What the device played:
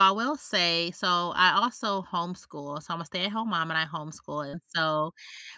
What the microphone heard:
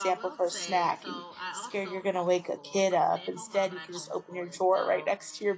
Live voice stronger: Yes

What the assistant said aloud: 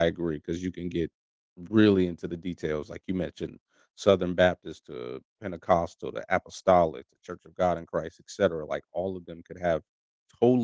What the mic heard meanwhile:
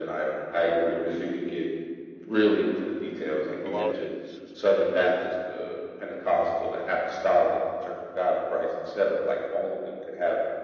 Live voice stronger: No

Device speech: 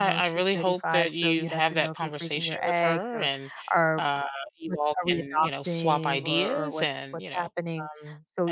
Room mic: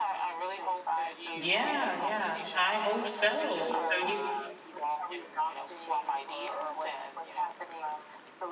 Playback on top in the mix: No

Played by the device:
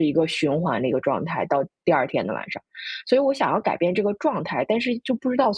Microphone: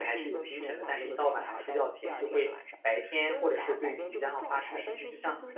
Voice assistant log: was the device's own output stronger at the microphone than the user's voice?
No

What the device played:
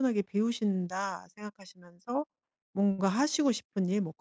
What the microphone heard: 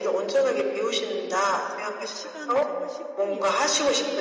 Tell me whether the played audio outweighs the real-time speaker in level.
Yes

